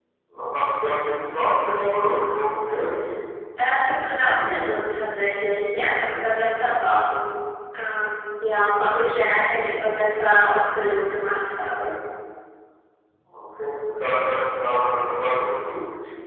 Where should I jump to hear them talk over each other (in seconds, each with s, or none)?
none